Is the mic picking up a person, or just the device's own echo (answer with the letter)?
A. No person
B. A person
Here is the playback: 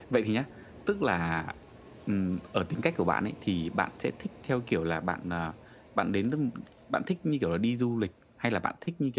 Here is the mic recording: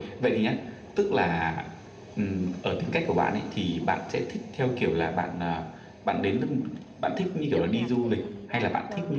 B